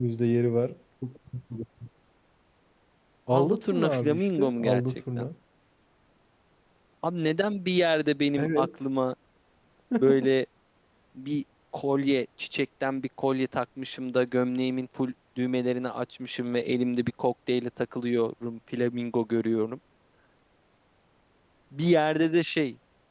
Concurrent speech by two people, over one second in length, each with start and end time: 3.3-5.3

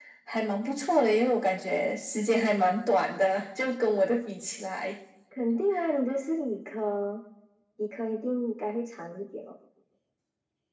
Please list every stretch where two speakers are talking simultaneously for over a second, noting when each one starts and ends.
none

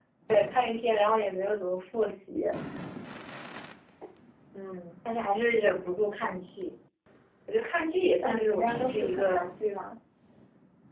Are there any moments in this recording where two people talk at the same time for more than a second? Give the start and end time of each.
8.2-9.5

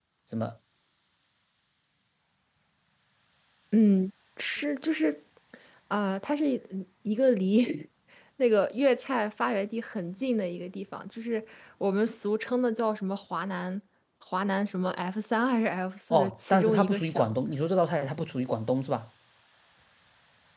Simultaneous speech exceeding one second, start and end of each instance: 16.1-17.4

